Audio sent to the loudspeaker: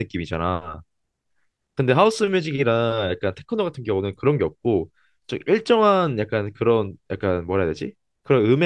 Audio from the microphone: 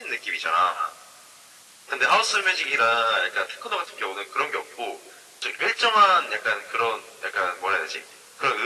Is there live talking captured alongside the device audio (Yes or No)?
No